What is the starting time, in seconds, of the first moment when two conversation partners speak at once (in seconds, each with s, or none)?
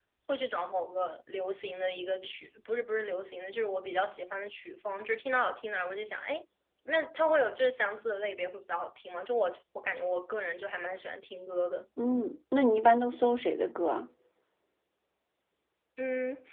none